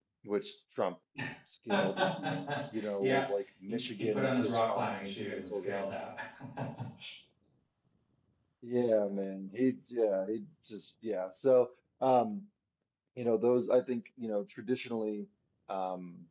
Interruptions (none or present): present